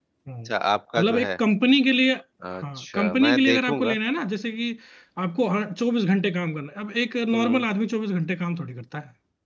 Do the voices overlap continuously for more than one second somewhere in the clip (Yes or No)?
Yes